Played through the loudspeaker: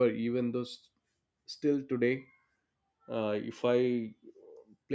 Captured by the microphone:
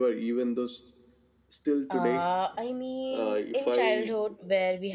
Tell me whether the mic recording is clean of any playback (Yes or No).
No